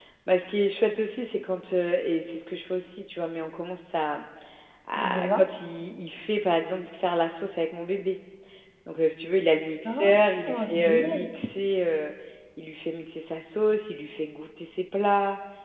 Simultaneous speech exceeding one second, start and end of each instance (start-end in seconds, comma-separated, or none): 9.9-11.3